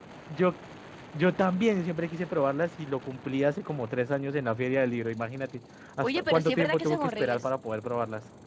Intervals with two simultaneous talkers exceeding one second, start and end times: 6.0-7.5

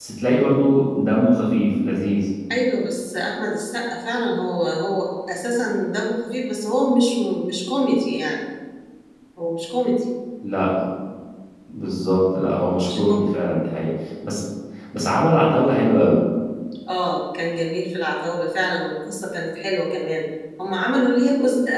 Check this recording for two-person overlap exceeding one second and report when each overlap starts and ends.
none

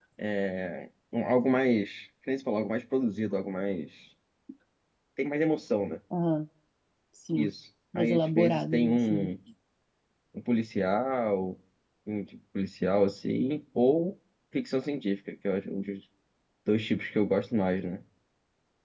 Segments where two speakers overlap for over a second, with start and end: 8.0-9.3

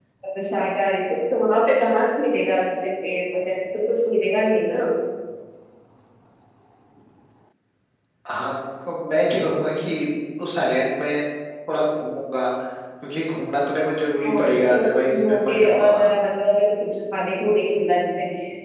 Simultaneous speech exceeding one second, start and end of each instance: 14.3-16.1

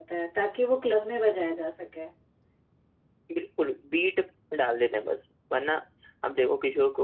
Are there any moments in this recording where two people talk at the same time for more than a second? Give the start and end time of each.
none

